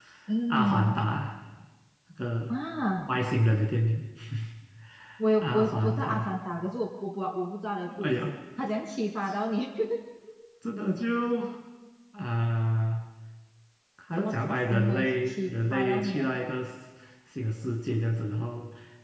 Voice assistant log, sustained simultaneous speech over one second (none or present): present